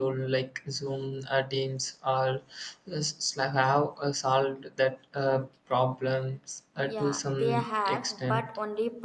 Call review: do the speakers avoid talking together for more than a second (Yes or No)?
No